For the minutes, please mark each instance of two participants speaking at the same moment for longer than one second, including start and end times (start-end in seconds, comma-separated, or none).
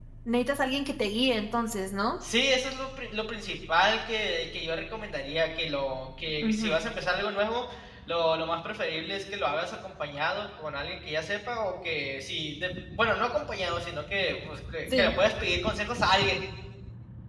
none